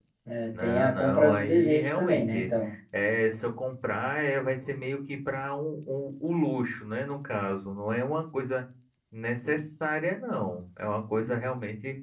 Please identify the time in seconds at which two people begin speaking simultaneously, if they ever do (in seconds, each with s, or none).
0.6 s